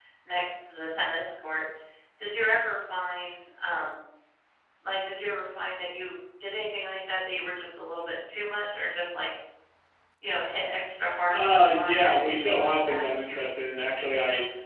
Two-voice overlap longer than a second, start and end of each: 11.3-13.1

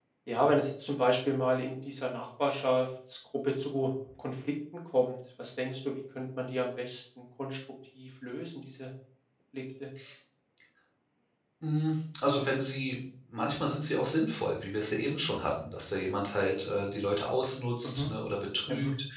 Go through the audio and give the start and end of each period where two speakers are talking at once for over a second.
none

